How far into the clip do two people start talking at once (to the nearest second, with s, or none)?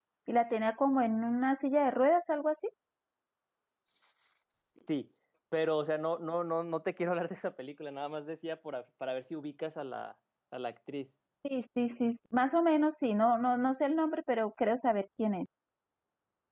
none